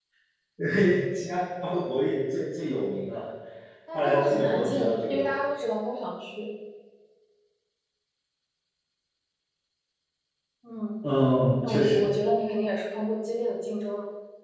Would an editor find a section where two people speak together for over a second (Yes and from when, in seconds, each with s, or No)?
Yes, from 3.9 s